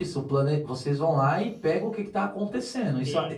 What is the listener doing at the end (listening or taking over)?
taking over